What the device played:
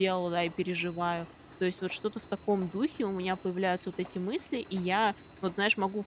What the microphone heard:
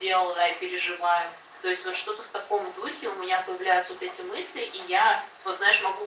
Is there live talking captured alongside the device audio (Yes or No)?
No